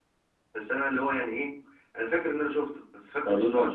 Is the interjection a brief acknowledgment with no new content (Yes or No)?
No